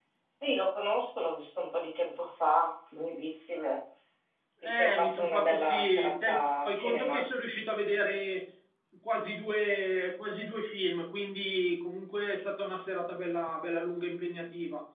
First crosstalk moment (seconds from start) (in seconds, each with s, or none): 4.6 s